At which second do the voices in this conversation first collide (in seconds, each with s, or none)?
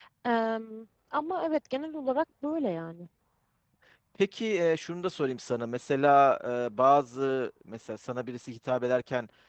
none